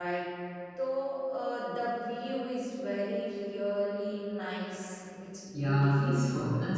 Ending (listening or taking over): taking over